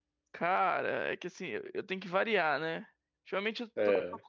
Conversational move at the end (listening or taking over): listening